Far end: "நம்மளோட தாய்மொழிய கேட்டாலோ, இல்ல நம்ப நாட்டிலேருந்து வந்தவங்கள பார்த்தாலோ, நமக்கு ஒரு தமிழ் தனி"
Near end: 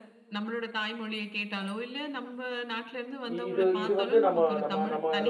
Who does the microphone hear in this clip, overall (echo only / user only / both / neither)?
both